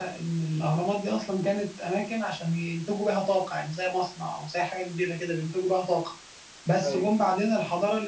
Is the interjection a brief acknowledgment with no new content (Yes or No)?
Yes